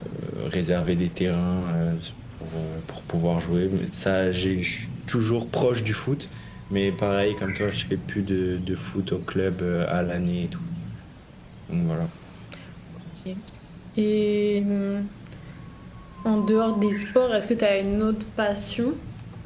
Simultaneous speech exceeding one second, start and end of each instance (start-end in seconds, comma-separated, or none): none